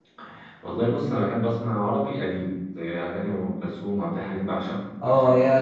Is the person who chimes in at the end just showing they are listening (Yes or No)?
No